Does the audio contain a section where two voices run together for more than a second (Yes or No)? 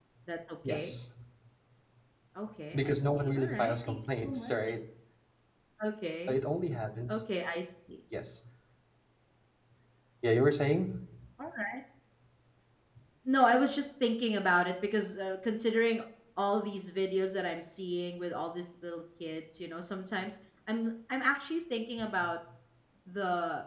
Yes